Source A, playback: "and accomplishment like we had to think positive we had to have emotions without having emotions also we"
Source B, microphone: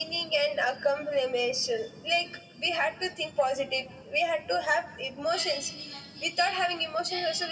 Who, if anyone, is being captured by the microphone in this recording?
both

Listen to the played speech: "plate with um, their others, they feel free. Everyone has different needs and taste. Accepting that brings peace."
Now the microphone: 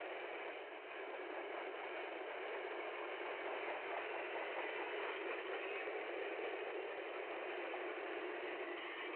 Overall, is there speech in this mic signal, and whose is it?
neither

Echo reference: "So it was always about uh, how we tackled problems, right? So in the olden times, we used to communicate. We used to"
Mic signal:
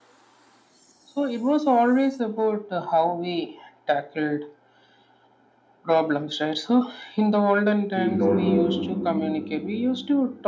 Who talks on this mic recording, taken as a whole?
both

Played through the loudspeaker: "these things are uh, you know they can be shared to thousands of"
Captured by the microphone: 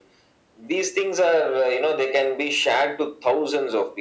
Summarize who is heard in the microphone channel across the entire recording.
echo only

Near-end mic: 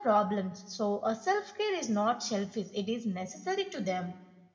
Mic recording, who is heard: echo only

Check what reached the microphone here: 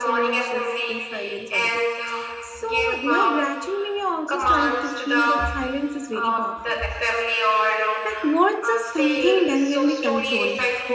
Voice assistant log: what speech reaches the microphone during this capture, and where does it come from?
both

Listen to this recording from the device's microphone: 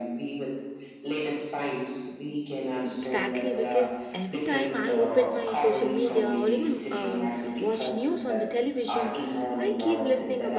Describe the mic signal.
both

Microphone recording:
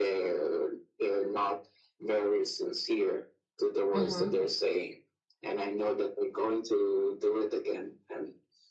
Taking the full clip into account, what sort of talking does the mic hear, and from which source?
both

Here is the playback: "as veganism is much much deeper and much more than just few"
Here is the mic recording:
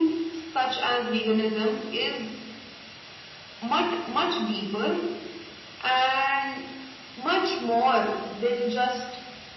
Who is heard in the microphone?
echo only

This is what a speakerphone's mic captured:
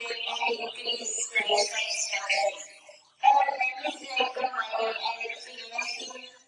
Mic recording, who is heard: echo only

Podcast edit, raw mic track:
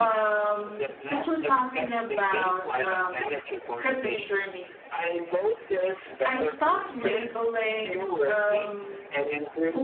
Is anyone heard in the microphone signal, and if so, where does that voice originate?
both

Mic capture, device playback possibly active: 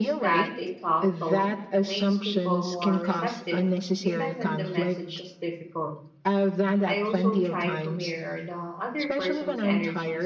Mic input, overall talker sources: both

